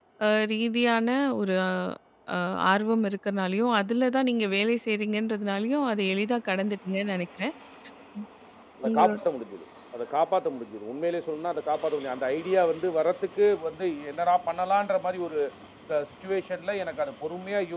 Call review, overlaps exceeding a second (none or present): none